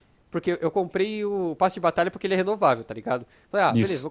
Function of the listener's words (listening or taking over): listening